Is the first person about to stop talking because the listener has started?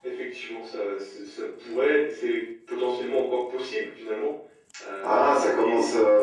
Yes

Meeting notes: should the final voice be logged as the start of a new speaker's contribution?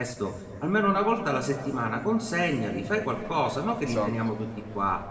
No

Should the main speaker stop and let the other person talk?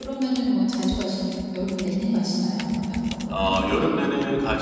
Yes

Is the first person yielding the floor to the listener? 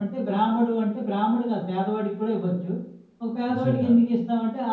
No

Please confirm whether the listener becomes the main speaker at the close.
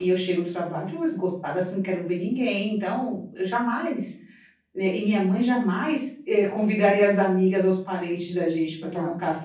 No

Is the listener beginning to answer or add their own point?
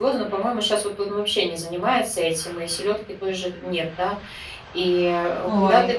No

